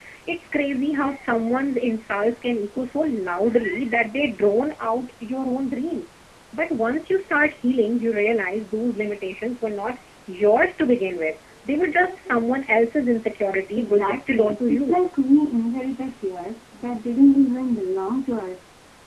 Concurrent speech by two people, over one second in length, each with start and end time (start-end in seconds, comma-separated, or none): 13.8-15.0